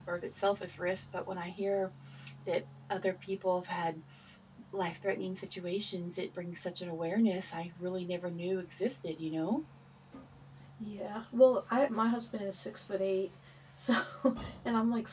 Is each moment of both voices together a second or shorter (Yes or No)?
Yes